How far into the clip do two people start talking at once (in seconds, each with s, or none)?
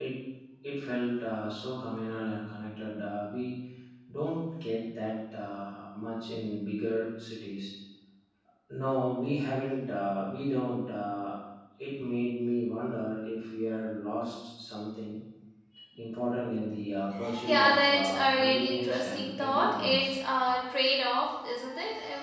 17.4 s